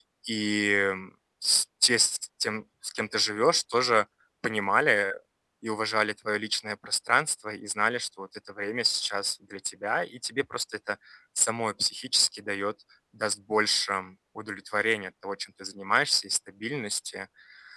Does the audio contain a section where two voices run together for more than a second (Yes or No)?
No